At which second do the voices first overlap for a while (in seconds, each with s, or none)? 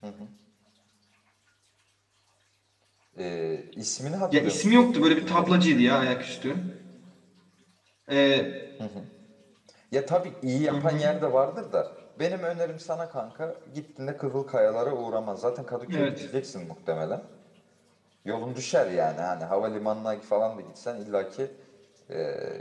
4.3 s